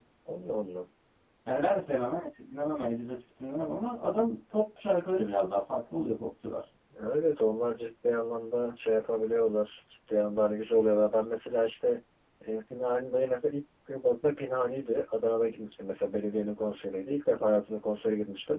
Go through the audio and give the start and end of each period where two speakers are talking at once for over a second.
none

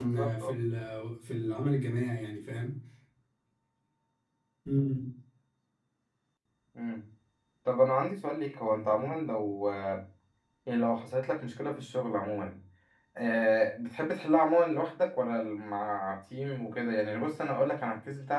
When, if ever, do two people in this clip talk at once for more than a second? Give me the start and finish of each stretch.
none

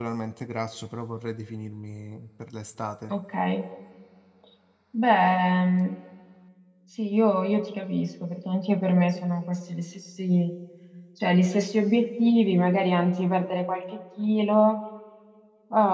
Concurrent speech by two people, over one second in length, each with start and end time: none

